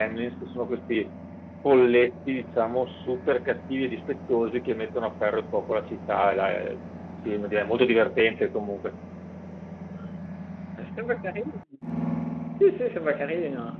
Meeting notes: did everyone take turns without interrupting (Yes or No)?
Yes